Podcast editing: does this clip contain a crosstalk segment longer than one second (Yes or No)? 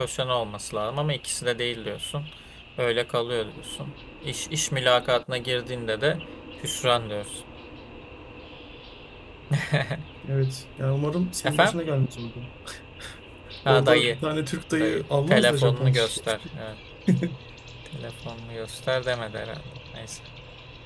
Yes